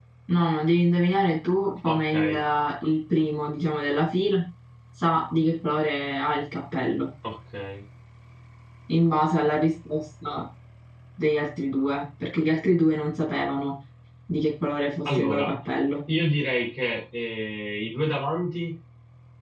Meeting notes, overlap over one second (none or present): none